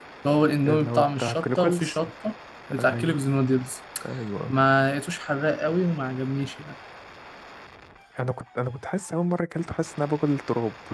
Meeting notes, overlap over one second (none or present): present